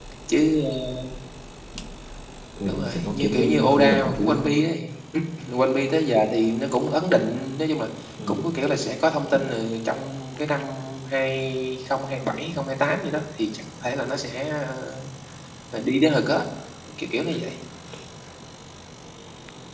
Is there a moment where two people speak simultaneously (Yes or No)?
Yes